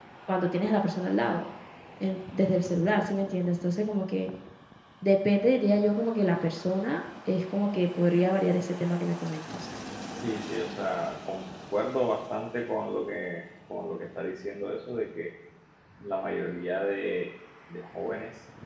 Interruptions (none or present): none